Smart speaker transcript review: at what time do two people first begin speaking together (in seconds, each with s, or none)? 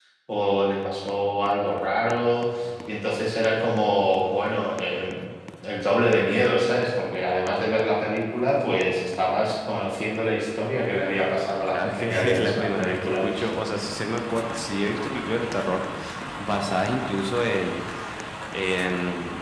11.7 s